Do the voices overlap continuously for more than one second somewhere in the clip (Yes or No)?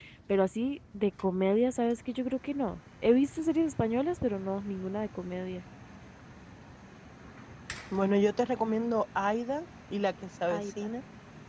No